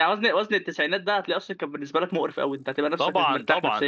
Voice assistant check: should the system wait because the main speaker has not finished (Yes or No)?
No